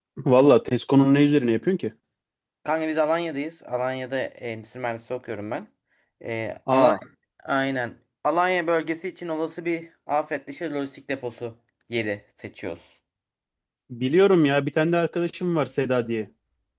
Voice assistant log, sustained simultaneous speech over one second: none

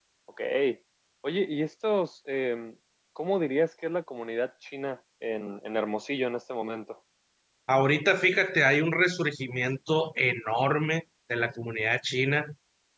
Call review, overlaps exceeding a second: none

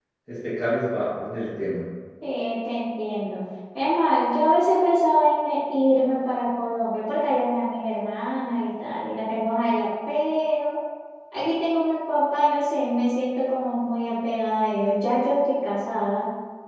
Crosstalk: none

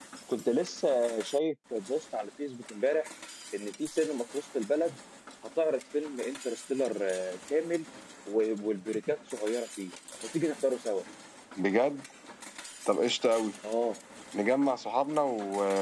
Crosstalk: none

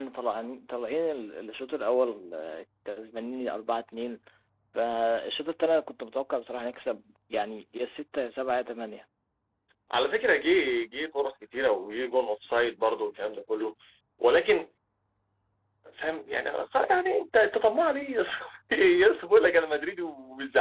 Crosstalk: none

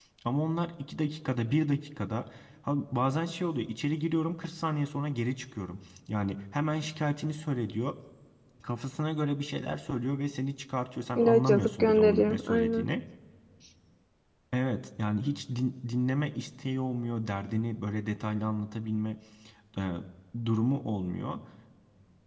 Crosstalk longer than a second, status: present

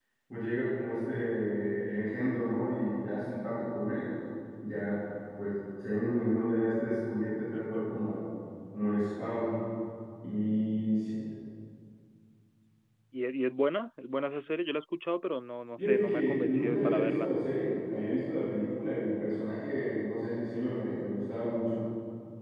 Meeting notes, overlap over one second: present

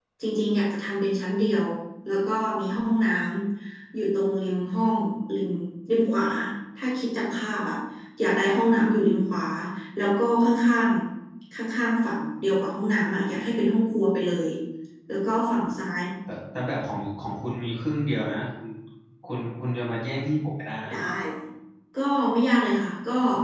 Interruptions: none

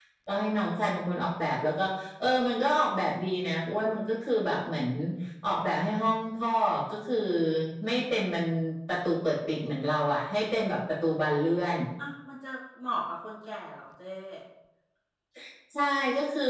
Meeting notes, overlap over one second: none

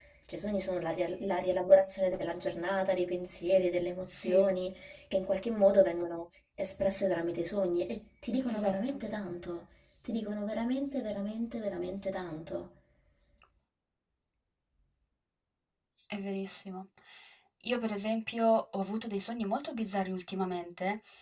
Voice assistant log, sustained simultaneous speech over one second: none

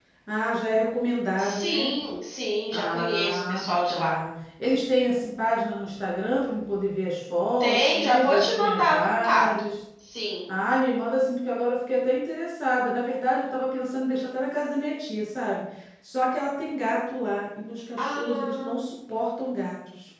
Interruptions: present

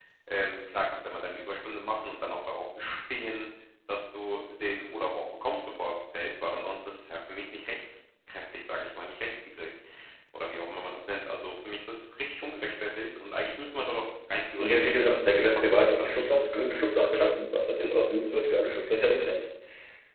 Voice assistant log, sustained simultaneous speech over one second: present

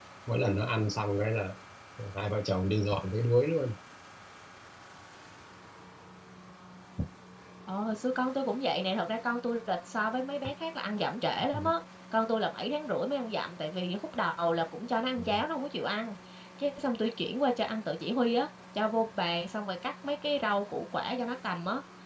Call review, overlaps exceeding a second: none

